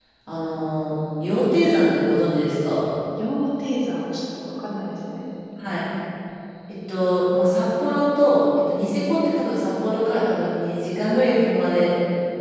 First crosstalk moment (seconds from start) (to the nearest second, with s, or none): none